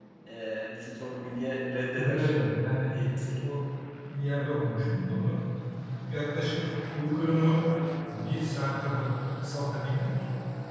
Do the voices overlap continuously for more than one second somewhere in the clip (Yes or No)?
No